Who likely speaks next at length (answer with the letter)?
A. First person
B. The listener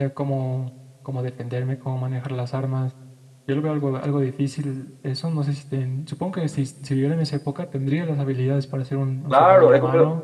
B